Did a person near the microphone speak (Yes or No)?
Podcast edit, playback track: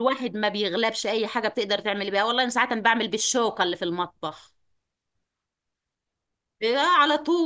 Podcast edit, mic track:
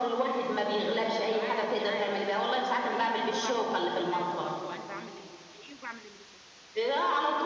Yes